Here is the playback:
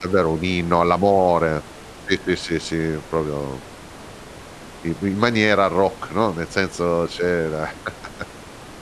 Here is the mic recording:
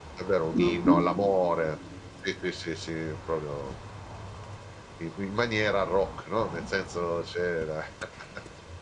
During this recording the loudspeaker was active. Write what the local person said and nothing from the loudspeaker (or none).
Mh-mh.